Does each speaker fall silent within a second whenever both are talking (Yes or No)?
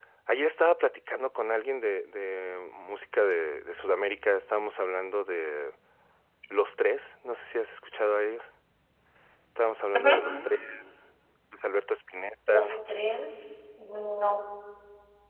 Yes